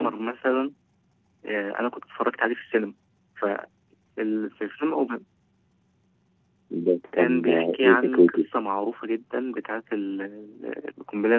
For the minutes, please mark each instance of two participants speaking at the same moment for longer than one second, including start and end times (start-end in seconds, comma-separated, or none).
7.2-8.4